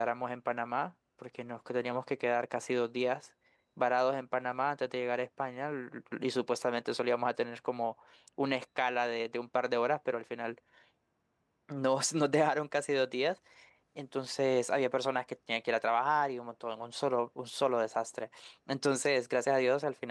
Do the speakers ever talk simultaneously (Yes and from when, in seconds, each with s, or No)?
No